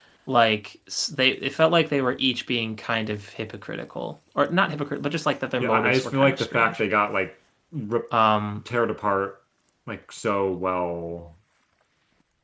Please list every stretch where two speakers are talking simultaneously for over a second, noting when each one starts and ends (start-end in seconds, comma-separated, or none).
5.6-6.8